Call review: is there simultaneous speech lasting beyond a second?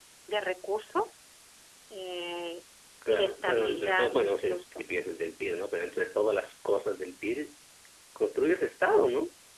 Yes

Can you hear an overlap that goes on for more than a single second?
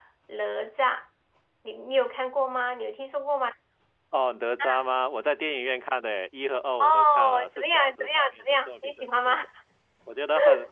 Yes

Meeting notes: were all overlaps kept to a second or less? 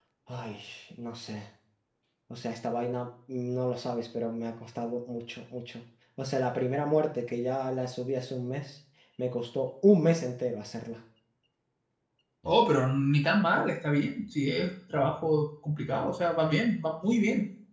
Yes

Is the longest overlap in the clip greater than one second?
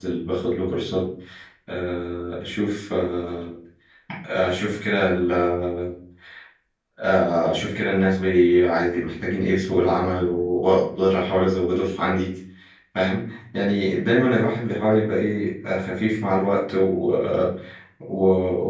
No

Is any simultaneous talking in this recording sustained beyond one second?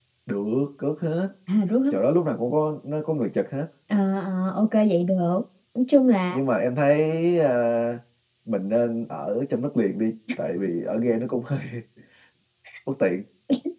No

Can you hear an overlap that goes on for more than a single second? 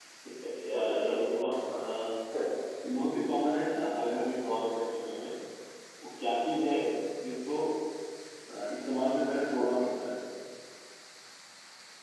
Yes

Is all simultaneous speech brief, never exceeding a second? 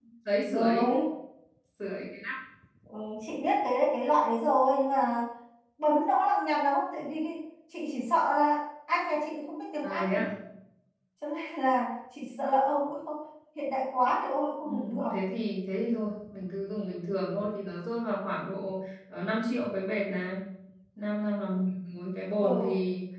Yes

